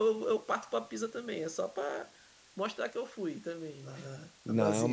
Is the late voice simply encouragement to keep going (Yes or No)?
No